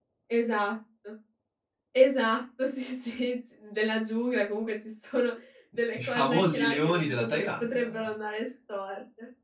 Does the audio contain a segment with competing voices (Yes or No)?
Yes